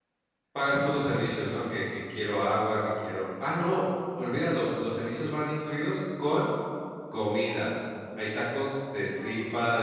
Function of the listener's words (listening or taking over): listening